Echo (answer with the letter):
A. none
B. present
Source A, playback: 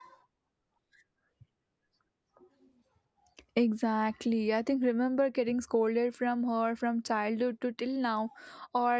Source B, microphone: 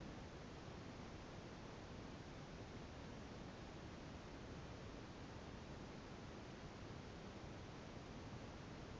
A